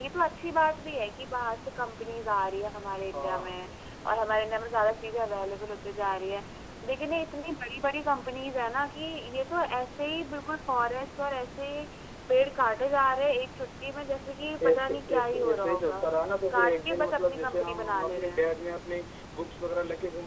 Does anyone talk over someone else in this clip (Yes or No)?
Yes